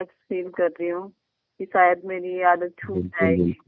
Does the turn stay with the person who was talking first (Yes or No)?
No